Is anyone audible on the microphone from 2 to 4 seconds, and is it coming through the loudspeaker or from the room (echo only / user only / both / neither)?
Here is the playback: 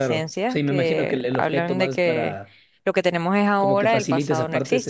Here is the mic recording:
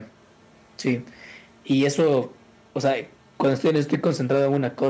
user only